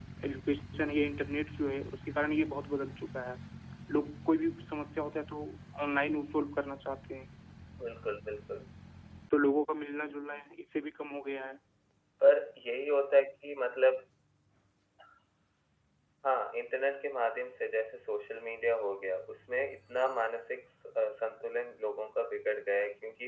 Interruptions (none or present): none